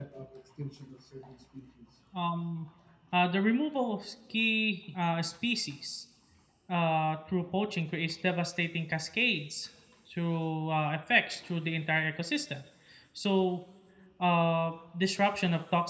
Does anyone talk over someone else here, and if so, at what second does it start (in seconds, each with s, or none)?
none